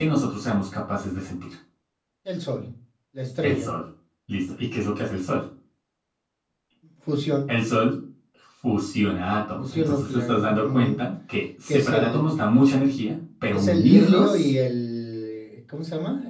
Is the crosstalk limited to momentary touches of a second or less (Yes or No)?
No